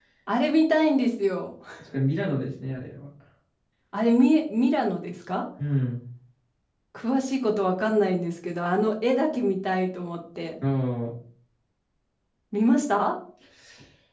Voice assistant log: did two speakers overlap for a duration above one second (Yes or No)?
No